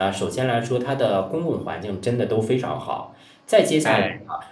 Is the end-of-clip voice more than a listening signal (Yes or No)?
No